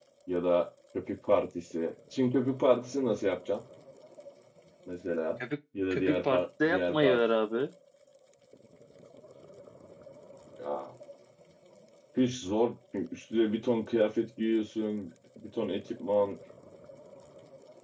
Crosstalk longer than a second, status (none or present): present